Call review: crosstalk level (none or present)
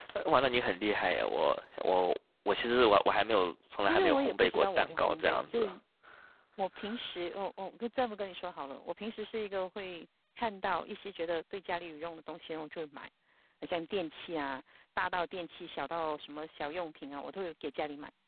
present